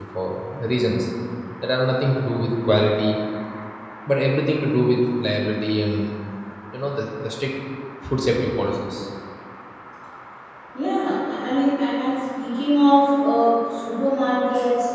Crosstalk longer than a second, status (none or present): none